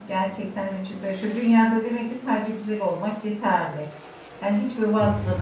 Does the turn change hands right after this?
No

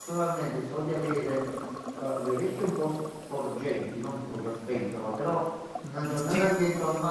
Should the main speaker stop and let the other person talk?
No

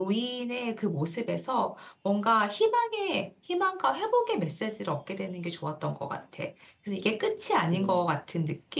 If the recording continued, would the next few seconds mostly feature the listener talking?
No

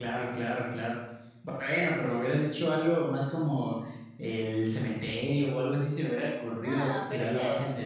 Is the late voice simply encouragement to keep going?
No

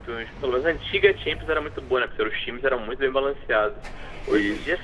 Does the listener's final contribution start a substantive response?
No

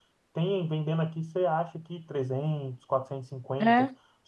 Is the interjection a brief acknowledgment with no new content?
Yes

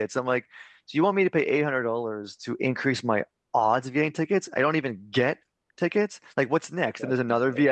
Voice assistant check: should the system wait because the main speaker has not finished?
Yes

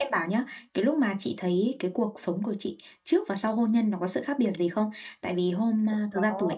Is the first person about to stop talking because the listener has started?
No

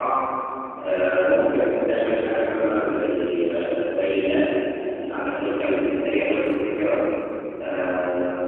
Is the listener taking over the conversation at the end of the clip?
No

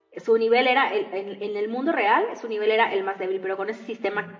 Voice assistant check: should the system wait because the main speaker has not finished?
Yes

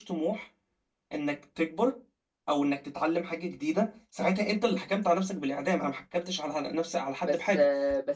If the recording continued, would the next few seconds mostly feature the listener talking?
Yes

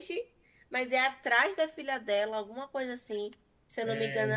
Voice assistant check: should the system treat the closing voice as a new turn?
No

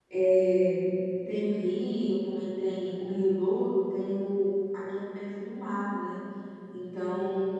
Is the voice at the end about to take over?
No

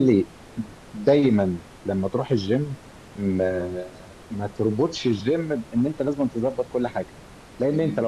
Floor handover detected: No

